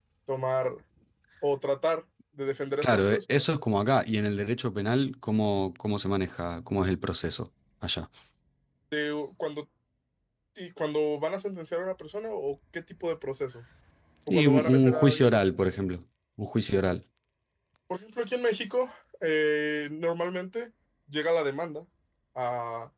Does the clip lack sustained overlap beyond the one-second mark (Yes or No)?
No